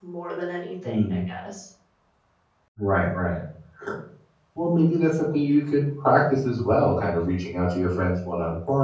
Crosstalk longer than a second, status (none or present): none